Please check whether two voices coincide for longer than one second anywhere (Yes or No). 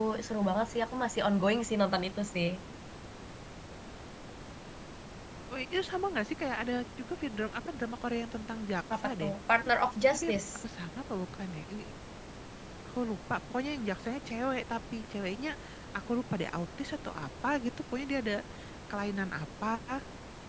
No